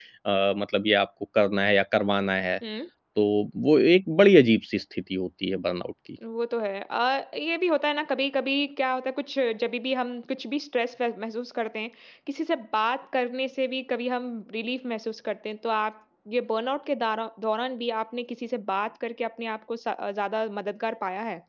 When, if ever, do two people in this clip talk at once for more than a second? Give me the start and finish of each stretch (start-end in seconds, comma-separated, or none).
none